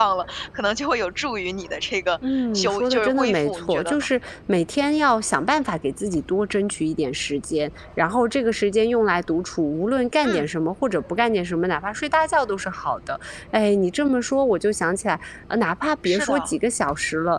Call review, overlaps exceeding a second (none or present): present